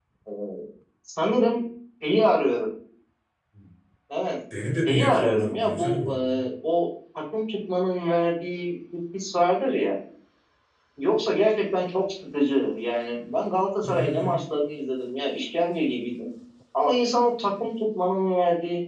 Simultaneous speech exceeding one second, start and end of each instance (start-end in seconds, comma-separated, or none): 4.9-6.4